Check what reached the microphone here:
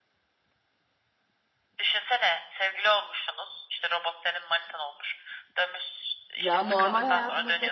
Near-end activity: present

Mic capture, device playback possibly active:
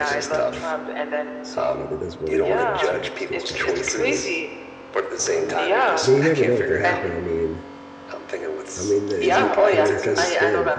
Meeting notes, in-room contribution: present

